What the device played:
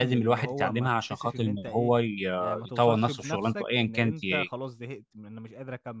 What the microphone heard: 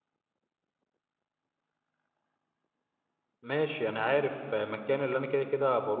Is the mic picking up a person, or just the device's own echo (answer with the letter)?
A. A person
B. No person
A